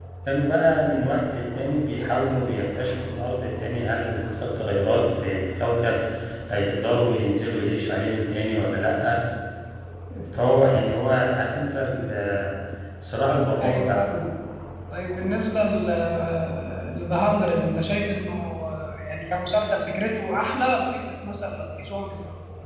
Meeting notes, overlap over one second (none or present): none